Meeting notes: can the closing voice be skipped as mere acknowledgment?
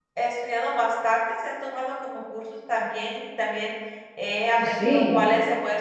Yes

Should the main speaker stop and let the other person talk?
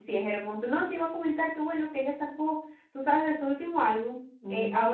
No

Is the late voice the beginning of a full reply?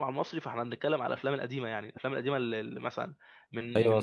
Yes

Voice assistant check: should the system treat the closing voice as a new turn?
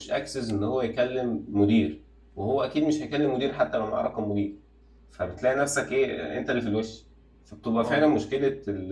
No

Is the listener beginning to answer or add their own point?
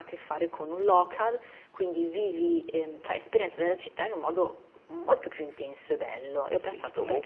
Yes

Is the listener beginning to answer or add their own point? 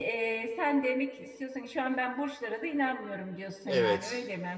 Yes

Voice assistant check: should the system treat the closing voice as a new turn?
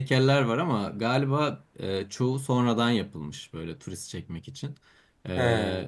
No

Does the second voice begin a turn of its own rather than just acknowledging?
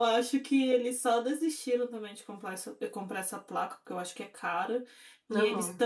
No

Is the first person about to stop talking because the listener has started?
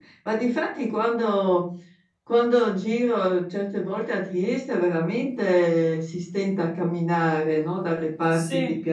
No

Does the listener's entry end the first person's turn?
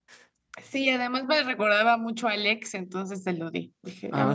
Yes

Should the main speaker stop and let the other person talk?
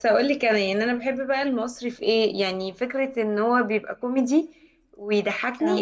No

